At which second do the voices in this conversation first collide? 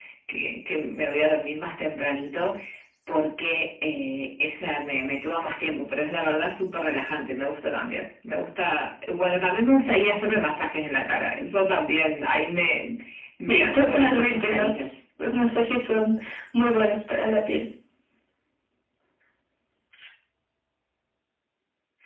13.5 s

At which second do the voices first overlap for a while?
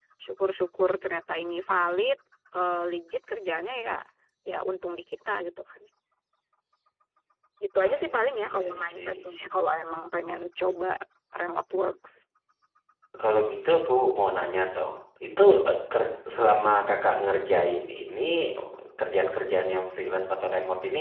7.8 s

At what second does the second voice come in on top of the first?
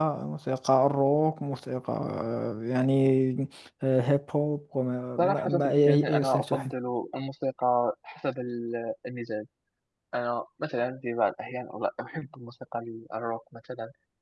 5.2 s

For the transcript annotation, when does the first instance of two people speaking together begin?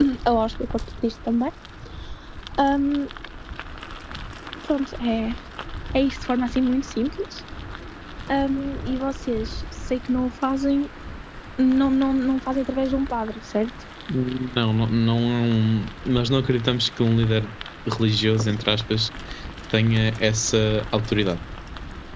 none

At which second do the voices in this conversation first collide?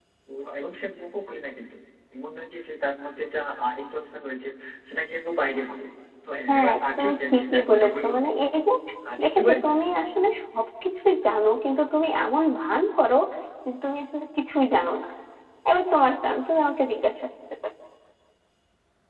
6.5 s

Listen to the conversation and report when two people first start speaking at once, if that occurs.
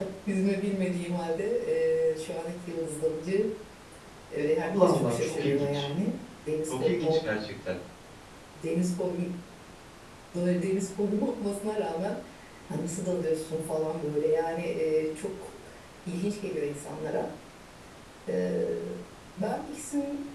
4.6 s

